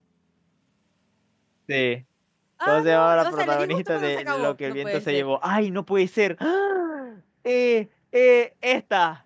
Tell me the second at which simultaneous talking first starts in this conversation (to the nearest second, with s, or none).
3 s